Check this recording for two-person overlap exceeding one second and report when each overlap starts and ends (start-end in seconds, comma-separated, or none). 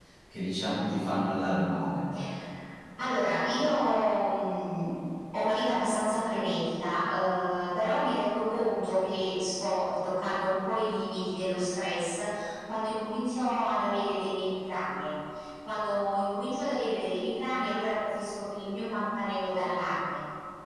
none